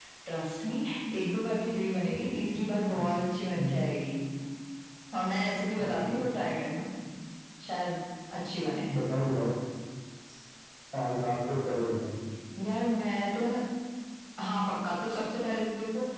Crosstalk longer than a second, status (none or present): none